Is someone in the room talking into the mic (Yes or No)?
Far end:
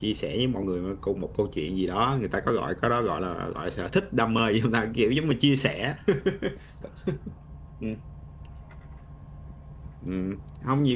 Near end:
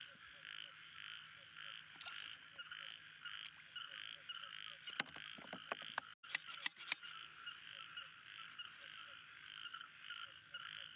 No